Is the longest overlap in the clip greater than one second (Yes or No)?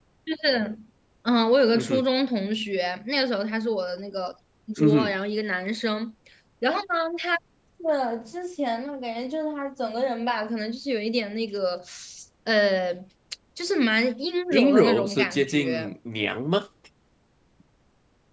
Yes